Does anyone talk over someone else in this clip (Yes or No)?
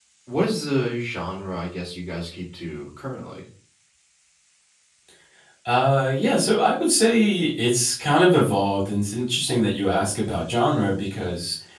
No